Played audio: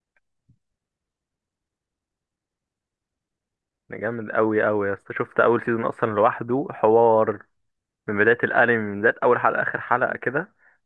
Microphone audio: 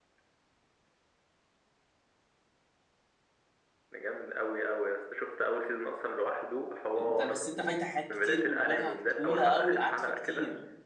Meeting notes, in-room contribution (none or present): present